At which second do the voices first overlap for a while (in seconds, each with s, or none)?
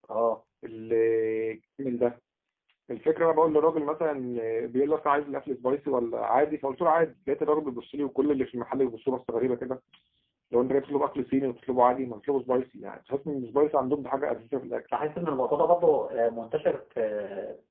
none